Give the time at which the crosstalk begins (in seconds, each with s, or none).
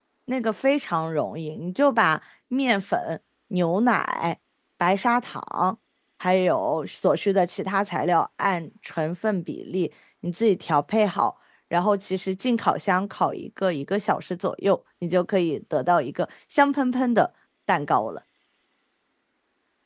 none